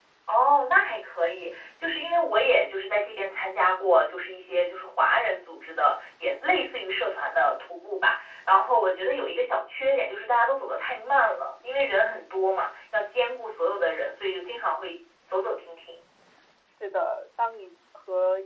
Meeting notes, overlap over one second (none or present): none